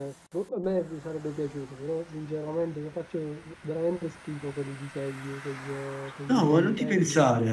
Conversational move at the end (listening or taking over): taking over